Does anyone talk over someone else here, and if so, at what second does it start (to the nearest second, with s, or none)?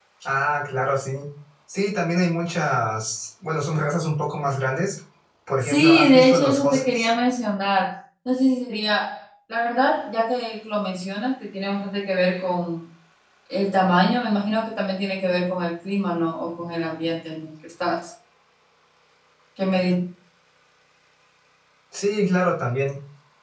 6 s